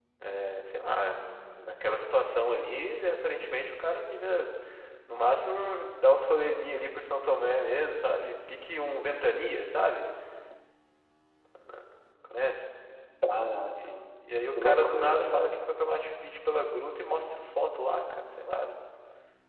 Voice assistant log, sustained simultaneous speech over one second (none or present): present